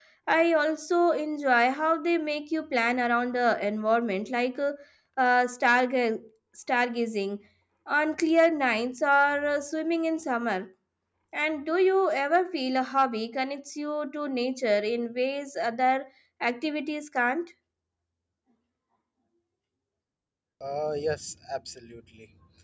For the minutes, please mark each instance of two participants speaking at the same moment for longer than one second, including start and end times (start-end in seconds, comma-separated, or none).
none